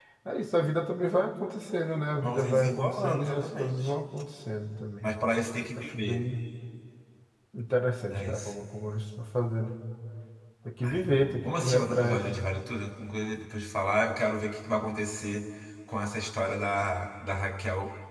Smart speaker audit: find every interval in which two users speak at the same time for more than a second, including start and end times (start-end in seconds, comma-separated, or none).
2.2-3.9, 10.8-12.2